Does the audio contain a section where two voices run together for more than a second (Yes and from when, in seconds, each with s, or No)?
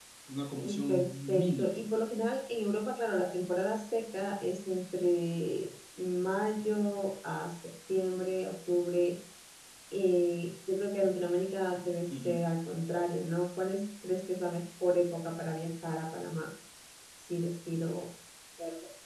Yes, from 0.5 s